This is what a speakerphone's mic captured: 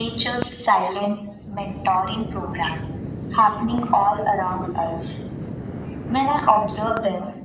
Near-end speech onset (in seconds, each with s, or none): none